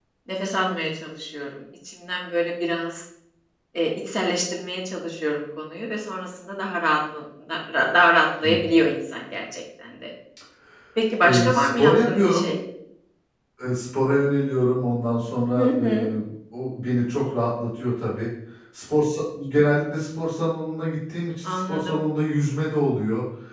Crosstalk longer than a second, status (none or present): present